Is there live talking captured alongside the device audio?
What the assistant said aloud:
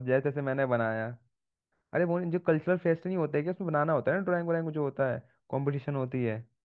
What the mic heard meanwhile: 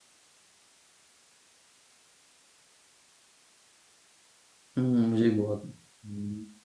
Yes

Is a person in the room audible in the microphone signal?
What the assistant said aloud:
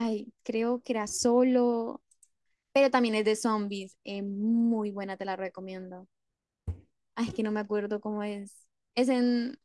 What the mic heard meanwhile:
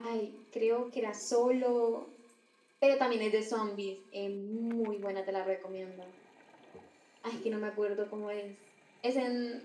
No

